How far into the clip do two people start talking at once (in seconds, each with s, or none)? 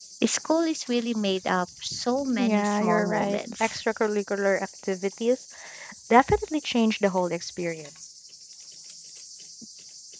2.4 s